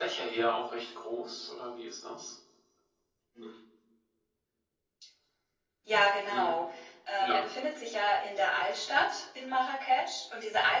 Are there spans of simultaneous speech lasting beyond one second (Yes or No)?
No